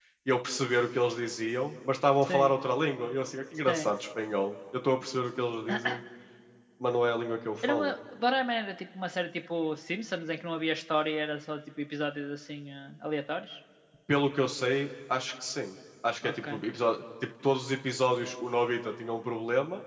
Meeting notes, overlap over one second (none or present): none